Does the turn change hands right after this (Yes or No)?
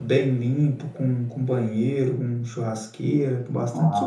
No